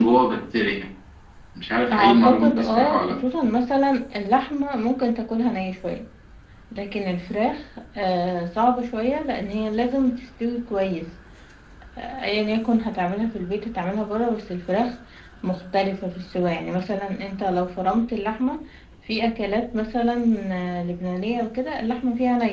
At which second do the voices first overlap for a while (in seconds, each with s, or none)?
1.9 s